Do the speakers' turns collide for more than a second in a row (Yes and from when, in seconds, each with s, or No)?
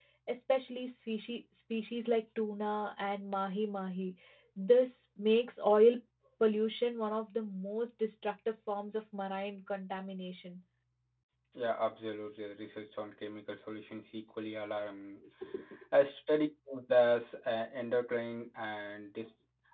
No